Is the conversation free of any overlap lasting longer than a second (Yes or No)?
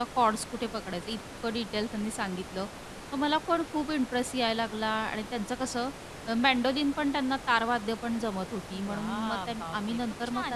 No